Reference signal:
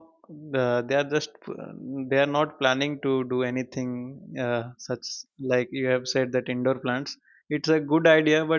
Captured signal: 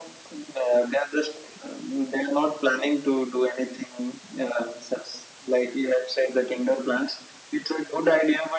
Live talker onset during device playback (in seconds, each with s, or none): none